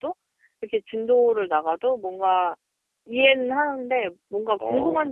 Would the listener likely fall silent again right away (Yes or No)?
Yes